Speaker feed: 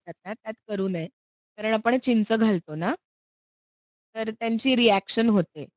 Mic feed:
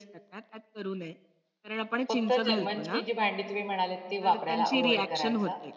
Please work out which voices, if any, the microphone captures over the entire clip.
both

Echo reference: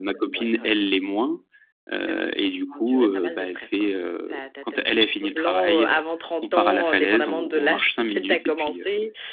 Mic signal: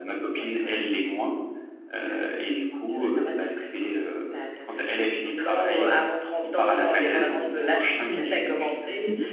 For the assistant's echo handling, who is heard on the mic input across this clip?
both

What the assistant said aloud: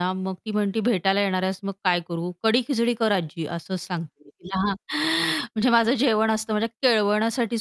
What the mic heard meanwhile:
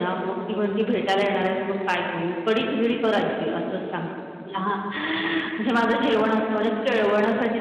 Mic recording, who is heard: echo only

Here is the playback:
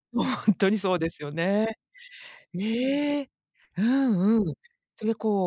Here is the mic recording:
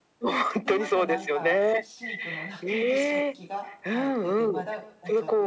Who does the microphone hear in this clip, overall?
both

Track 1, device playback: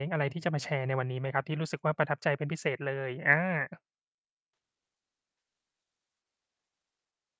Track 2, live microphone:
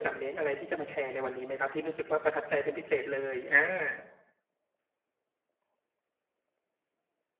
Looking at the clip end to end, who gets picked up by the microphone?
echo only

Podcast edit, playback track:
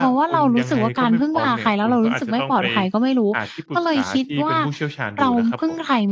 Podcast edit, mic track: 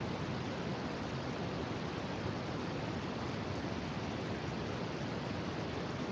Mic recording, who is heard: neither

